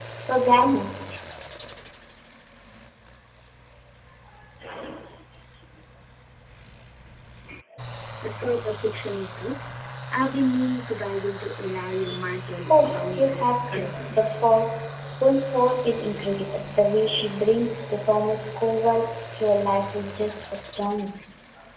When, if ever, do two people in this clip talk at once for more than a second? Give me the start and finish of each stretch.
12.7-14.2

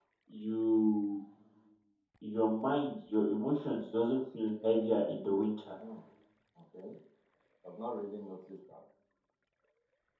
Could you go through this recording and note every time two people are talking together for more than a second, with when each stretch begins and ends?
none

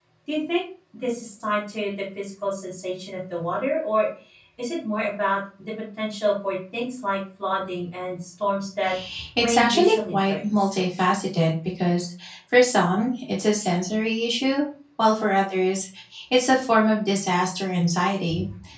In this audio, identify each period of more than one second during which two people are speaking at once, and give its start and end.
9.4-10.7

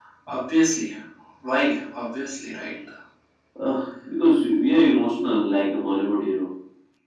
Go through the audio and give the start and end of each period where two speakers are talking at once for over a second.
none

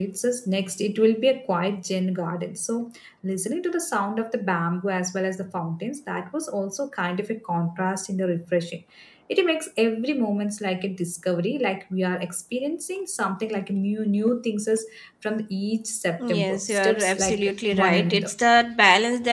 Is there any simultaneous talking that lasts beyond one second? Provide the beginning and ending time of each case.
16.2-18.3

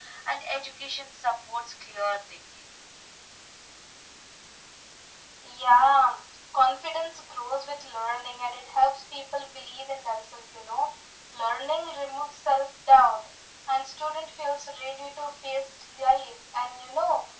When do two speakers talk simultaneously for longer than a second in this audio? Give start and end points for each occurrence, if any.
none

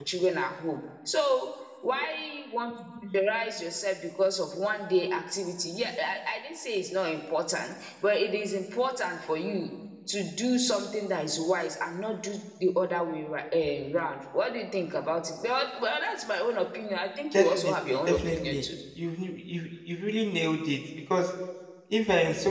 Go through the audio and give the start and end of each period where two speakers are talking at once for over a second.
17.3-18.6

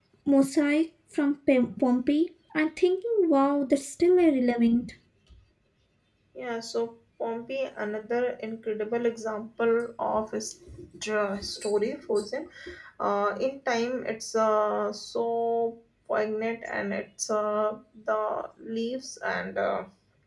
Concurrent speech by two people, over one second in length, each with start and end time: none

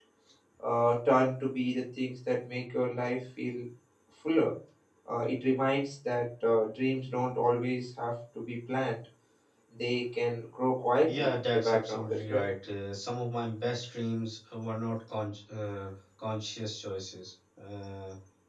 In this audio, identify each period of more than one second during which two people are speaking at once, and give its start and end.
11.0-12.4

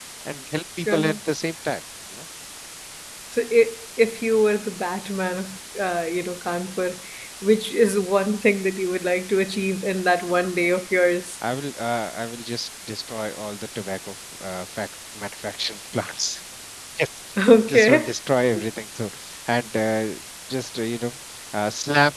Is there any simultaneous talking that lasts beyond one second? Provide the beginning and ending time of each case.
none

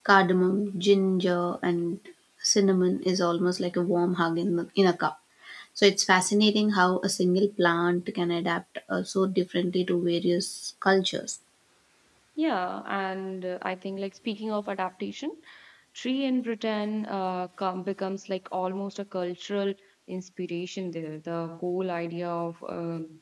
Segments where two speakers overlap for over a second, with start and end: none

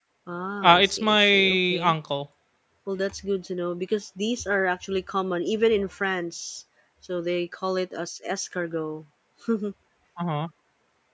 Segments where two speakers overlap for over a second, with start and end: 0.6-1.9

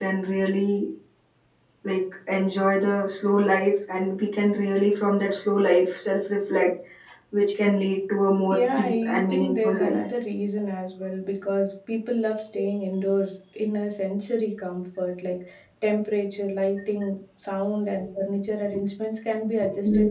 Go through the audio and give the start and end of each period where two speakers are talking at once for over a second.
8.5-10.0

